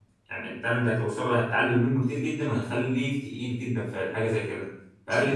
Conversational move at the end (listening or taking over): listening